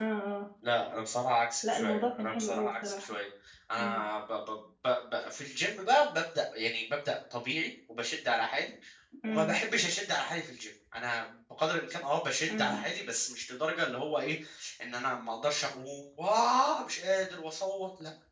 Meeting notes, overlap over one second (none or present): present